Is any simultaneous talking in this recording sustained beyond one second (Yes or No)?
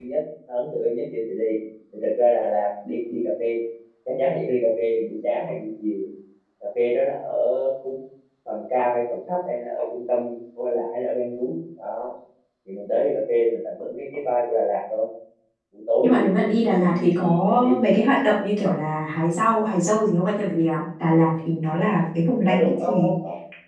Yes